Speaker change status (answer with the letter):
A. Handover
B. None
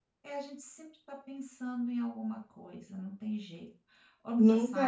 A